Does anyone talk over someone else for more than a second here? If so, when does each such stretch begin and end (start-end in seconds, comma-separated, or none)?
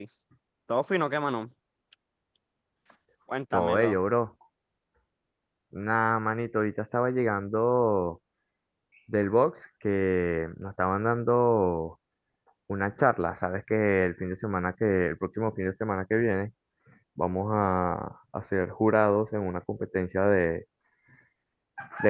none